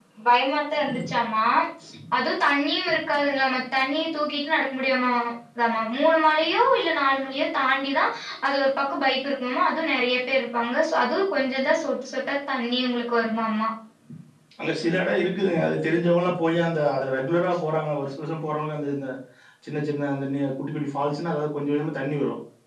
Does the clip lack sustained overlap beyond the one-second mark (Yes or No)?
Yes